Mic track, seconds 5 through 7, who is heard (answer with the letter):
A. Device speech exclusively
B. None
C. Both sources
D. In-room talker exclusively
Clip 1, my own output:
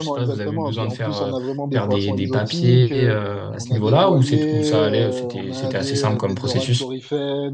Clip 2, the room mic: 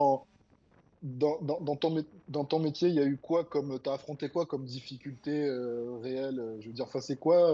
D